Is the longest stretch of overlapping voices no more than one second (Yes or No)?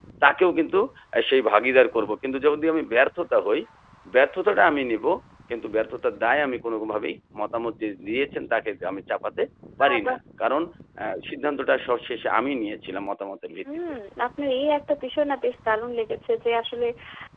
Yes